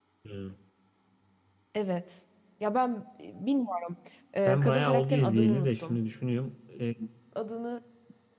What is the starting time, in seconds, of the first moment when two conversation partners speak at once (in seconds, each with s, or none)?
4.5 s